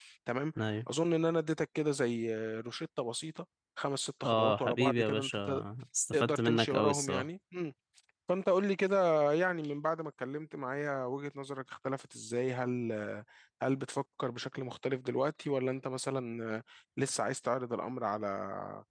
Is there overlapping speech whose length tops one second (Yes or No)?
Yes